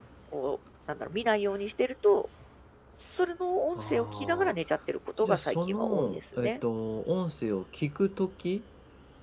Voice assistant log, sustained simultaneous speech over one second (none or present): present